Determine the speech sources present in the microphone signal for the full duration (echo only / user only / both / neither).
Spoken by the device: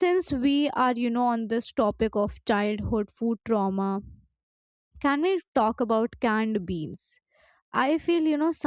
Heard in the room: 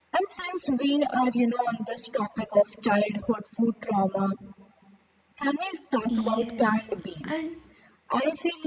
both